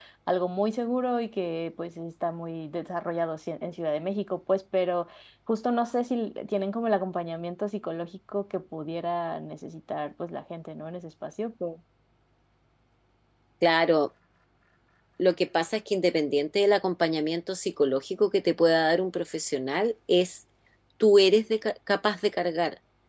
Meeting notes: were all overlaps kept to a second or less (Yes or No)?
Yes